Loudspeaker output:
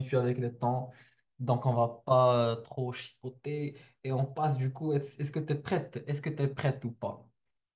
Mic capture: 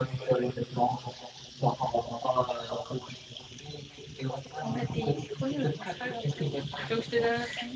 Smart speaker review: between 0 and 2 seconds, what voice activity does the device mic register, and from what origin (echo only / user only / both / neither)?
echo only